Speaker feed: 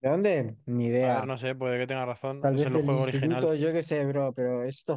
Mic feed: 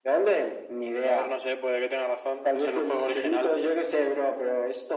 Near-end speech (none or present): none